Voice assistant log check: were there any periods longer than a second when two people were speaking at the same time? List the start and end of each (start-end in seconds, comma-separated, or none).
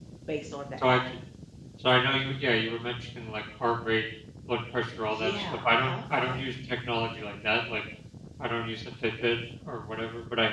5.0-6.4